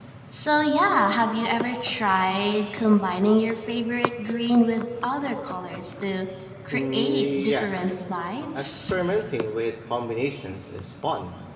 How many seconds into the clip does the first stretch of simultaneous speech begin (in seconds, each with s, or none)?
6.7 s